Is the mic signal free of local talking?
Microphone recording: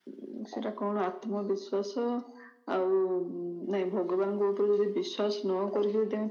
Yes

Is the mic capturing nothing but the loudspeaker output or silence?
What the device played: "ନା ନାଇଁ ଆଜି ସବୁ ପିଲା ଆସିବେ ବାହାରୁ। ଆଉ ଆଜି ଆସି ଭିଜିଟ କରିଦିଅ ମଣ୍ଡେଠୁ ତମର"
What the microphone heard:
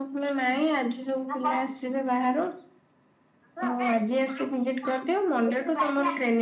Yes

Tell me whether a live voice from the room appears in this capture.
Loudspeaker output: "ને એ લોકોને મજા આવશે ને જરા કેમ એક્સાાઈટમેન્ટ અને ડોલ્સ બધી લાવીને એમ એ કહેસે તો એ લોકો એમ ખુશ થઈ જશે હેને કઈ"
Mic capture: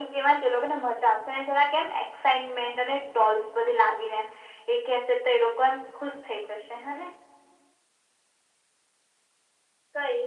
No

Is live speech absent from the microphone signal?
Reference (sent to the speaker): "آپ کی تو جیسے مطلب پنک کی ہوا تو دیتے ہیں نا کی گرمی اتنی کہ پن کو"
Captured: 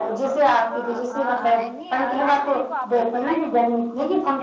No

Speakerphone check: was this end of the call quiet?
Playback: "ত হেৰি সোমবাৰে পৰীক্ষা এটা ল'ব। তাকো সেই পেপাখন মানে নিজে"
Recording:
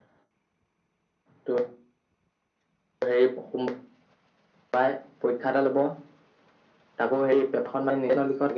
Yes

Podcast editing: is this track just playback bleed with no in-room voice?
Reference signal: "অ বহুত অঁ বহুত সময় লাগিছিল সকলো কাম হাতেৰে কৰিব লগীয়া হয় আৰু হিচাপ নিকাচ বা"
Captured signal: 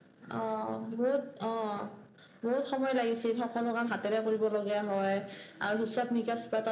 Yes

